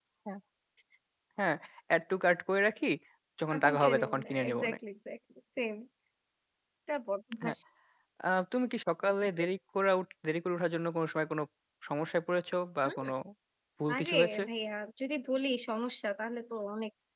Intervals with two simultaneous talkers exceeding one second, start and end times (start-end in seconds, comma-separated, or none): 3.5-4.8